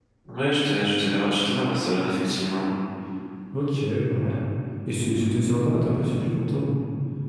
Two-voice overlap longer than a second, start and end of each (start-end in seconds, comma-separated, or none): none